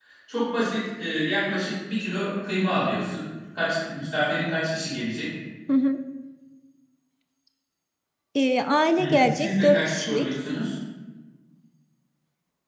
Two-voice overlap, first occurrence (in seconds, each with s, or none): 9.0 s